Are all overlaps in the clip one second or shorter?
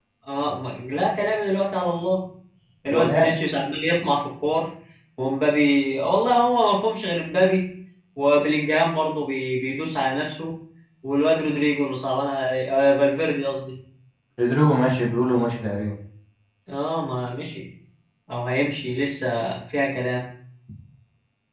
Yes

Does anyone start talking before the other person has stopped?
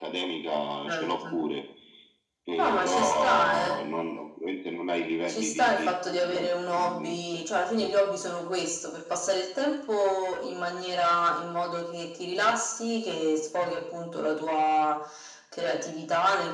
Yes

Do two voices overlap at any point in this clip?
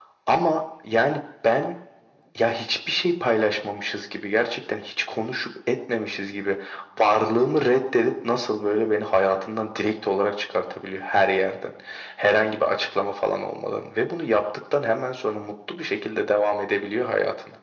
No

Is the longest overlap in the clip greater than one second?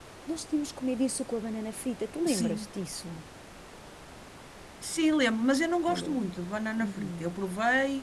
No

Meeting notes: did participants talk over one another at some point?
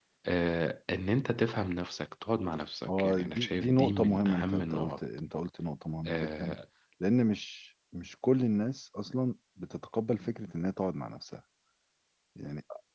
Yes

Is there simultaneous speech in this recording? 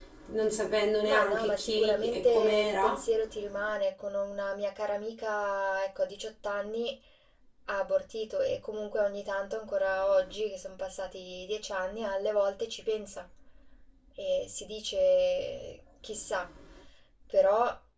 Yes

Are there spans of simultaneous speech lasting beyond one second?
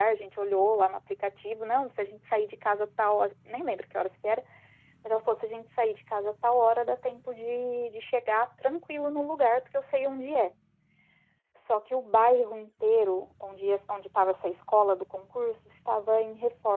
No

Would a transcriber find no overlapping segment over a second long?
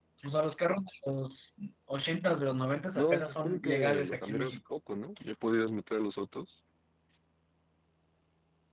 No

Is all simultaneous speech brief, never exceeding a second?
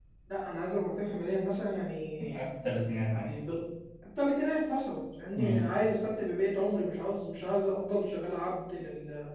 Yes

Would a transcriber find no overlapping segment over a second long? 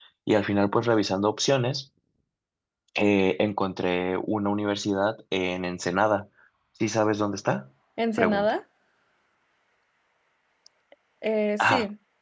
Yes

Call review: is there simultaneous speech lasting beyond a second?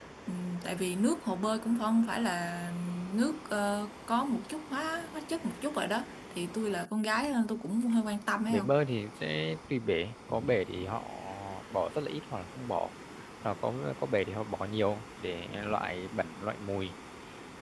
No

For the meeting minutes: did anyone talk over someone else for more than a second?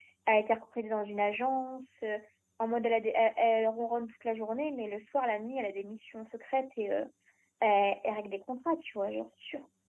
No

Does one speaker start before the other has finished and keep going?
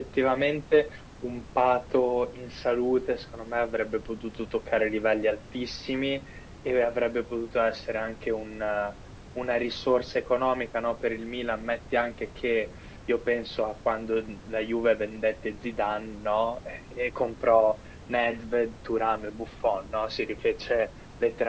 No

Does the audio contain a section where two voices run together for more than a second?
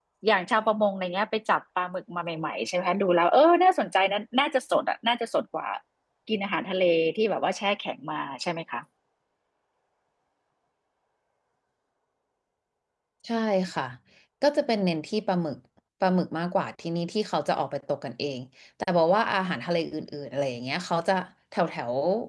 No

